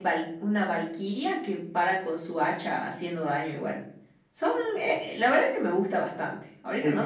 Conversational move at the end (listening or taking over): listening